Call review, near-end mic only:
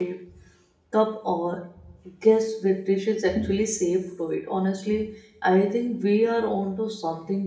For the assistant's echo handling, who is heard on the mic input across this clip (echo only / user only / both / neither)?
user only